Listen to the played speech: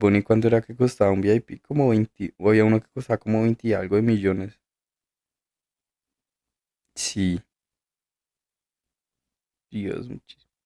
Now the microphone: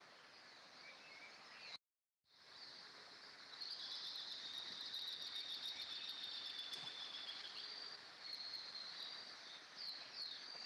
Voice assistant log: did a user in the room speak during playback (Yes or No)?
No